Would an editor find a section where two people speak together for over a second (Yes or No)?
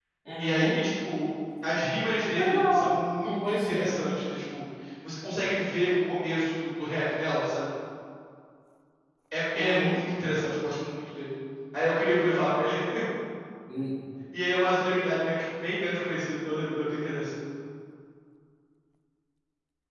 Yes